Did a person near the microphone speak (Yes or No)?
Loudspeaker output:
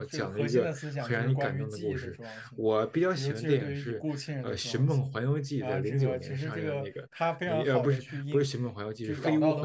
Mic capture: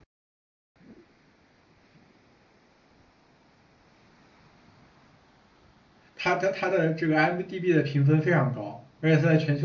Yes